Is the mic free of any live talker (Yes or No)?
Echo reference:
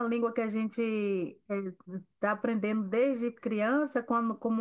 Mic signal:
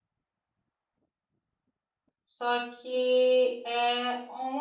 No